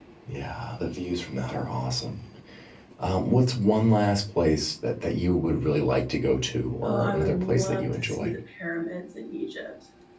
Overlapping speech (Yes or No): Yes